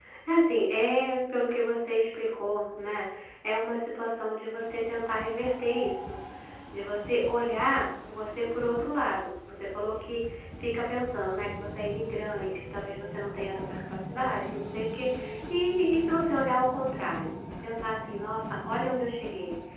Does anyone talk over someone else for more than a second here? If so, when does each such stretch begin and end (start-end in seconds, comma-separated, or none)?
none